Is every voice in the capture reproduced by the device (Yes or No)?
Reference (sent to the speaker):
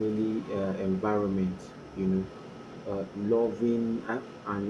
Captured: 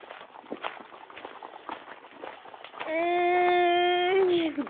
No